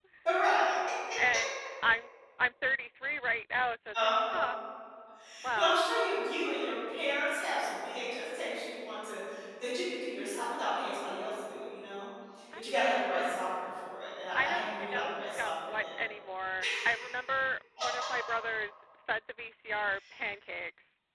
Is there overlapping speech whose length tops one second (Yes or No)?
Yes